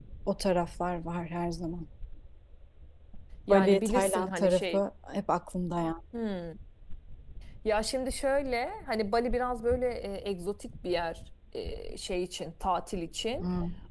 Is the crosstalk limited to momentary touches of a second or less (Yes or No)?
No